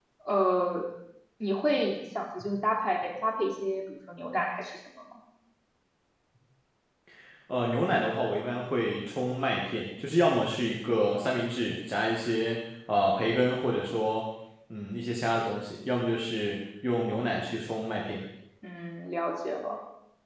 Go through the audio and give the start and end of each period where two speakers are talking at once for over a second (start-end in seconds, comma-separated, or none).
none